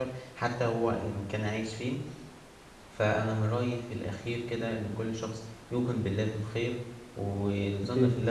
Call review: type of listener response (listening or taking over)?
listening